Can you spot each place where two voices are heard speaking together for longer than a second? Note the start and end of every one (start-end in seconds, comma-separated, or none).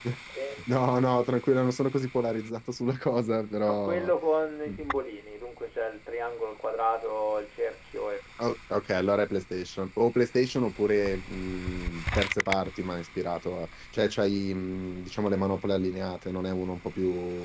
none